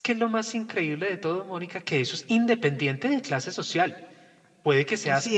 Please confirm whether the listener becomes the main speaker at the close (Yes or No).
No